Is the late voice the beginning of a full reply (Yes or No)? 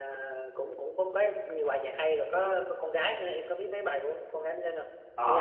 Yes